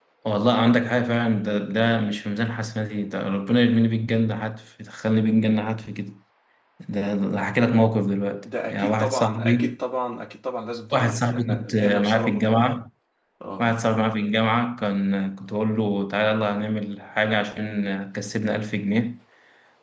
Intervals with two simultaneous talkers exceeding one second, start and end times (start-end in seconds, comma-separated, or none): 8.4-9.8, 10.9-12.8